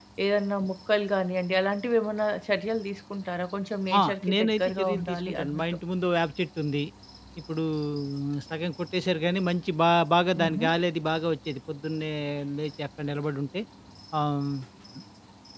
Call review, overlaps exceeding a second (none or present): present